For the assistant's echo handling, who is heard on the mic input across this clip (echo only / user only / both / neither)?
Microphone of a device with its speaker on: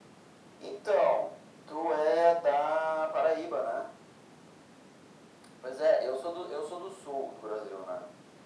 echo only